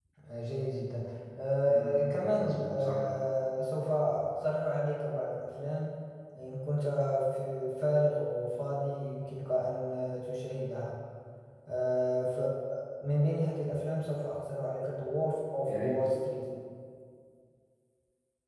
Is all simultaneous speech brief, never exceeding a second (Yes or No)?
No